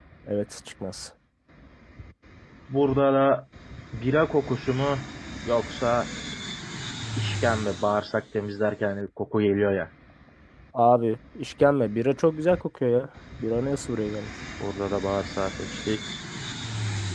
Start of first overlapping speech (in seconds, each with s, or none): none